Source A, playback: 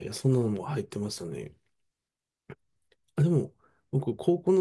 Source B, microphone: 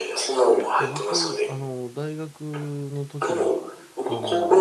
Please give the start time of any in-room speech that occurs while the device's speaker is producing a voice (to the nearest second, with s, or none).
1 s